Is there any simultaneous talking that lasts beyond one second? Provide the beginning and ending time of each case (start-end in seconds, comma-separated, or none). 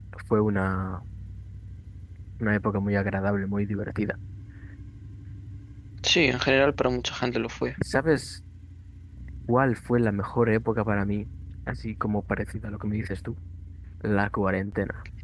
none